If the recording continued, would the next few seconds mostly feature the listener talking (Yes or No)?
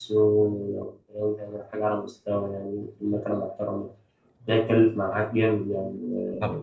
Yes